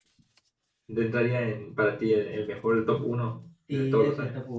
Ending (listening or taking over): taking over